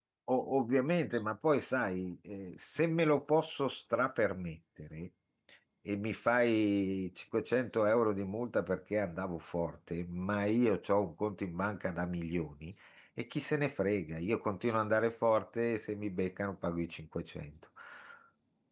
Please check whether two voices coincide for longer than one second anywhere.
No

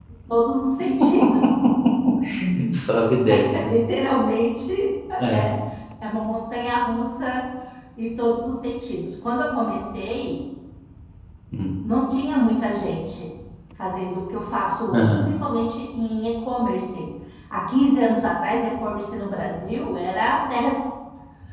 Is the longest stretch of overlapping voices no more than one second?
Yes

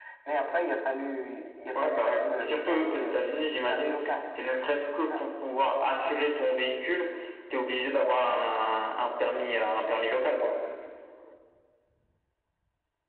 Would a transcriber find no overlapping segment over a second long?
No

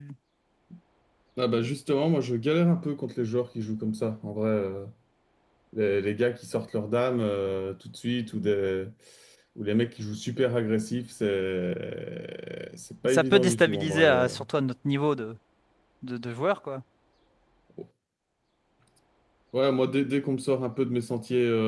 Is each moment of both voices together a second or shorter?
No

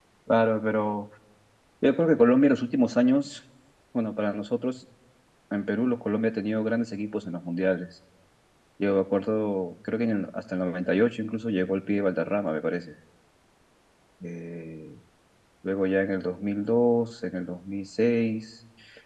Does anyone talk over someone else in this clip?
No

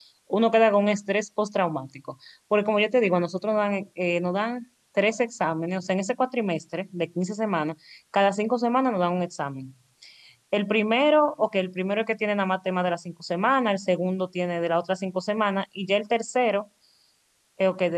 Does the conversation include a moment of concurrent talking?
No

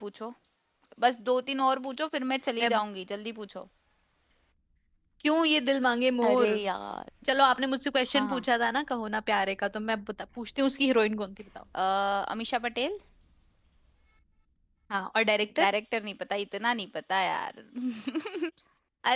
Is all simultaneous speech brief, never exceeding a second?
Yes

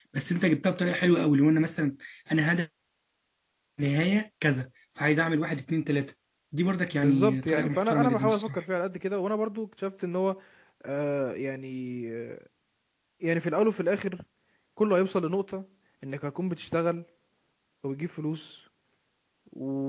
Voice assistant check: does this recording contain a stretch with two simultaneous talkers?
Yes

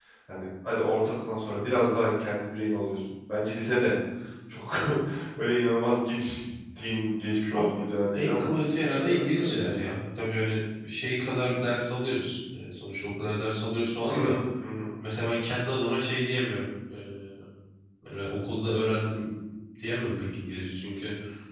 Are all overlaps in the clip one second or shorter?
No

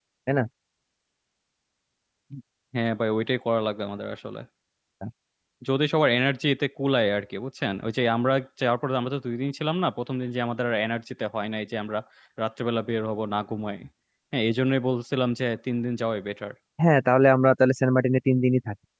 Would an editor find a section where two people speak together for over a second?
No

